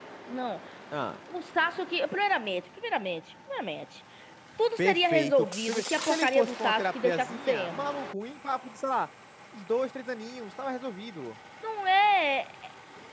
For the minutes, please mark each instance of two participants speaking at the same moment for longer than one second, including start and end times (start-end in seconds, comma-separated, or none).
4.8-7.8